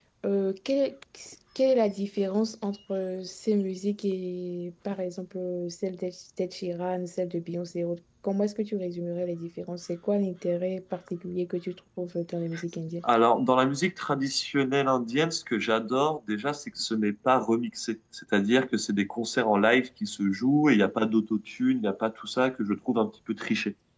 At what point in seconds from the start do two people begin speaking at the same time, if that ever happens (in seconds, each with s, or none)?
none